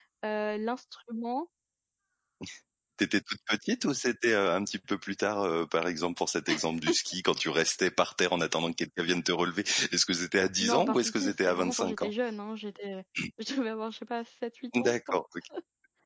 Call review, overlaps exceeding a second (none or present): present